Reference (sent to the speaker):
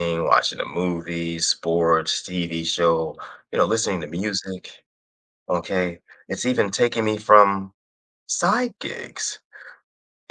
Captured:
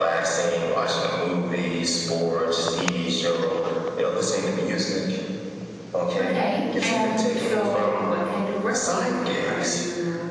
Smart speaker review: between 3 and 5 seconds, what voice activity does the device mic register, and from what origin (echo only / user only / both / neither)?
echo only